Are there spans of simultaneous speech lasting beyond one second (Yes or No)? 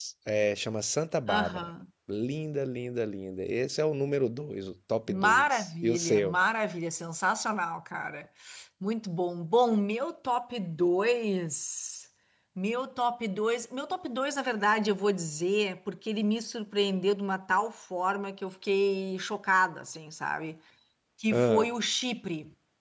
Yes